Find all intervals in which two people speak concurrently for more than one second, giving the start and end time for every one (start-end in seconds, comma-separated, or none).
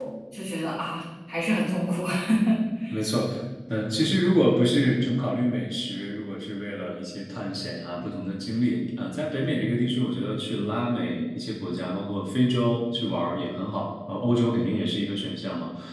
none